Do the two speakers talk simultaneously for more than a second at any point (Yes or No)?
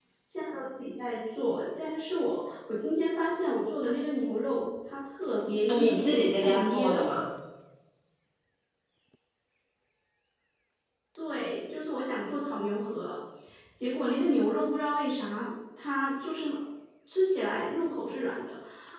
Yes